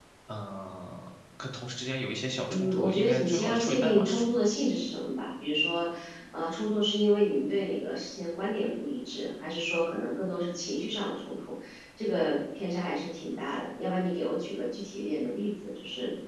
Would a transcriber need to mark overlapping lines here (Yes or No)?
Yes